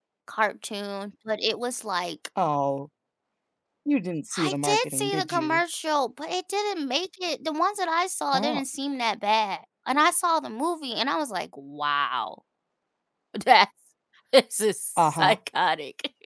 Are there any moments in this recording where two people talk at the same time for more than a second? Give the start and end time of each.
4.4-5.6

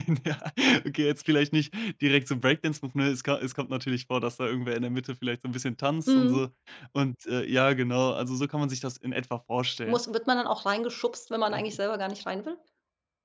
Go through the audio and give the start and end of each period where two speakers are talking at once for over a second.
none

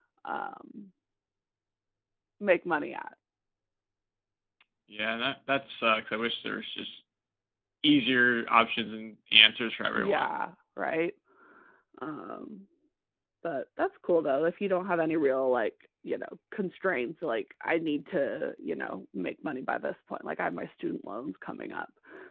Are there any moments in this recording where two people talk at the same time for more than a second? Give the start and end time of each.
none

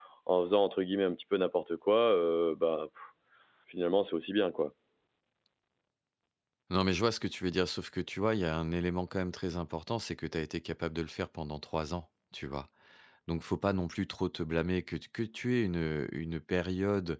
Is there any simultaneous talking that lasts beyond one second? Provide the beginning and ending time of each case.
none

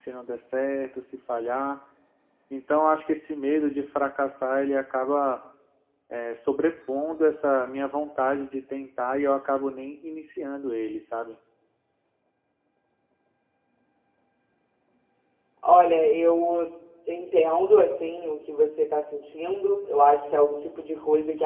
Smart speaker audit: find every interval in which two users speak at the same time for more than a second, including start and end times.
none

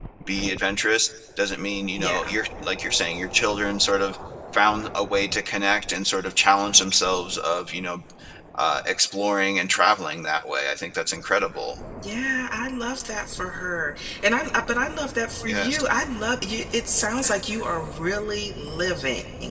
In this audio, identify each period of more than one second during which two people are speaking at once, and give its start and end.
none

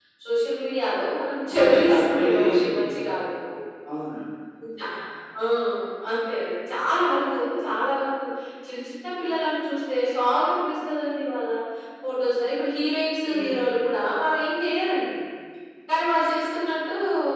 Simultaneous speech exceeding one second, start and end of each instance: 1.5-3.1

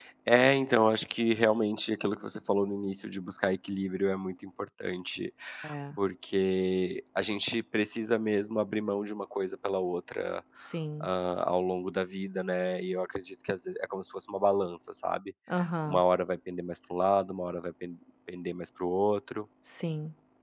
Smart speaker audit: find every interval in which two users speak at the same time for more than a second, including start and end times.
none

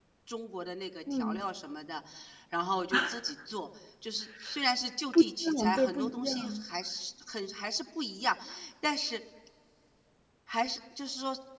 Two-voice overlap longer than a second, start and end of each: 5.4-6.6

